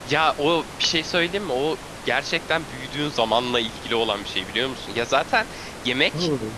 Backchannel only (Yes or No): Yes